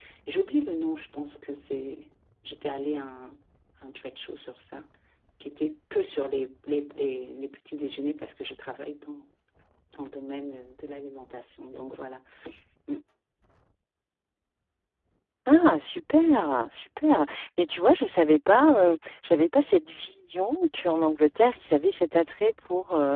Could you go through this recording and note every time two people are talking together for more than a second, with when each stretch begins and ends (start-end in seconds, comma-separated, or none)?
none